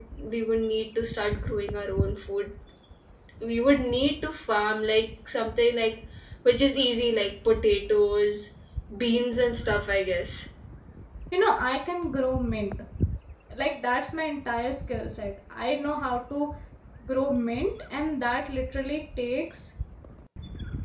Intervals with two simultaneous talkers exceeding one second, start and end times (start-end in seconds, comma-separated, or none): none